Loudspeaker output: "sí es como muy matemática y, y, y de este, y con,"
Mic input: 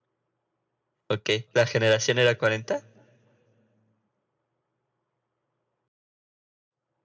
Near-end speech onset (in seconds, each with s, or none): 1.1 s